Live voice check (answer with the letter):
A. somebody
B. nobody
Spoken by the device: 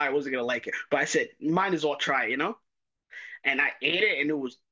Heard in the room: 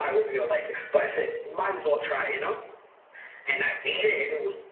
B